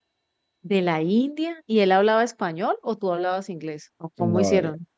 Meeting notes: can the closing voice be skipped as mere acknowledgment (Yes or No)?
No